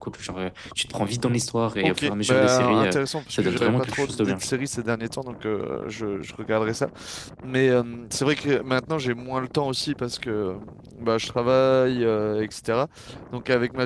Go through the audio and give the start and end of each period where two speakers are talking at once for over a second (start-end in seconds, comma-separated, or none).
1.8-4.5